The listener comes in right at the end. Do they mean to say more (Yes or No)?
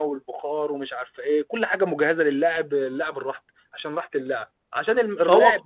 No